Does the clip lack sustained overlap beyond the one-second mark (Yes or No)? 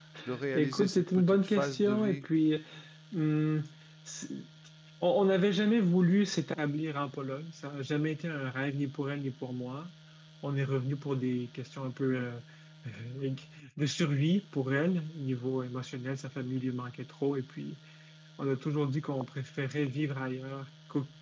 No